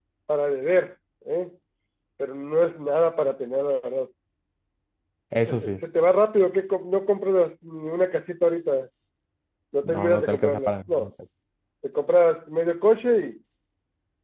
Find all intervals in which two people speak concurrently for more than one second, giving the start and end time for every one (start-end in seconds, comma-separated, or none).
9.8-11.1